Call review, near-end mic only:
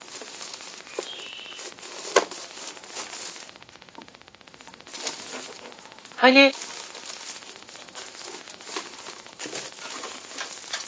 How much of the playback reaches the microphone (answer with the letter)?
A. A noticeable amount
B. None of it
B